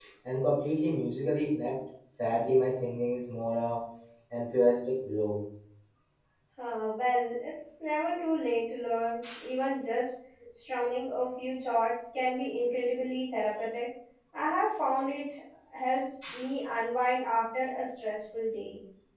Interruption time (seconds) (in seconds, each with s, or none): none